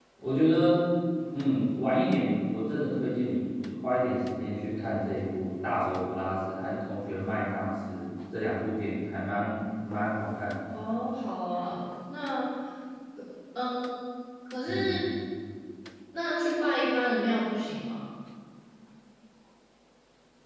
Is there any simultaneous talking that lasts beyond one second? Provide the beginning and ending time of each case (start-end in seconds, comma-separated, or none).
none